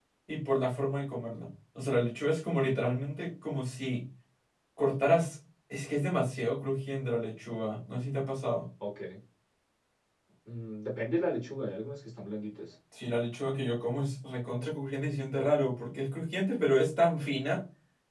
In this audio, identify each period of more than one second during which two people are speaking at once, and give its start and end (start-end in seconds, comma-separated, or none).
none